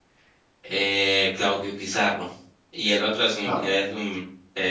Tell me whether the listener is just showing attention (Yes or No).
Yes